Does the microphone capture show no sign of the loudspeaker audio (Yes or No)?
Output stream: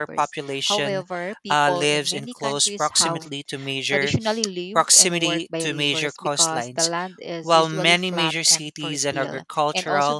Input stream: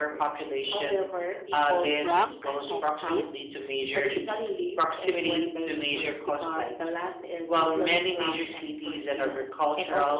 No